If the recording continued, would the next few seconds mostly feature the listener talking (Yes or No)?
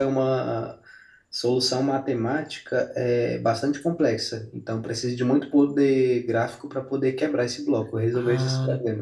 Yes